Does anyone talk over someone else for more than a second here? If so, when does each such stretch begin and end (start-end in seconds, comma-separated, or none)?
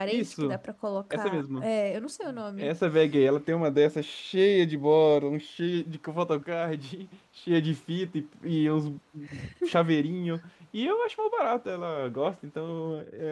none